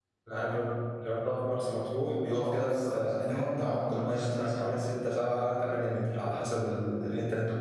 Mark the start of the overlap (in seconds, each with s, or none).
2.4 s